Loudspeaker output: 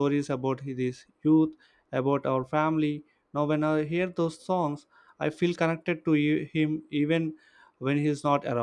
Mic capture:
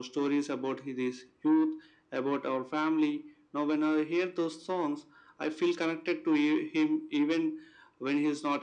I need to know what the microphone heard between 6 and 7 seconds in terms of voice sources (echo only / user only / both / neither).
echo only